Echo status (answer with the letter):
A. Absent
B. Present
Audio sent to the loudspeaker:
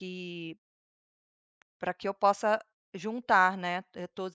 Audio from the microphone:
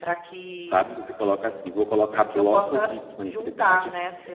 B